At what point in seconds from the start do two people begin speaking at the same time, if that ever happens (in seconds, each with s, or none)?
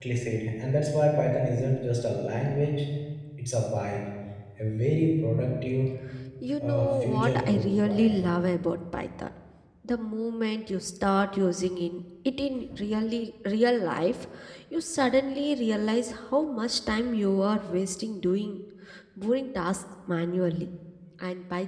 6.6 s